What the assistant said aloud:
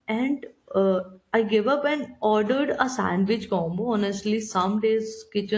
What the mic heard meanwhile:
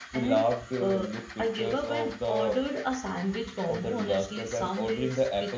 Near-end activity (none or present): present